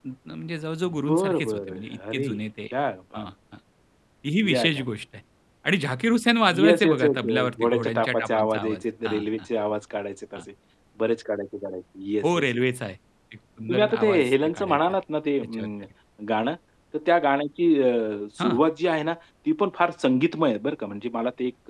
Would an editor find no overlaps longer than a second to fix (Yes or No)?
No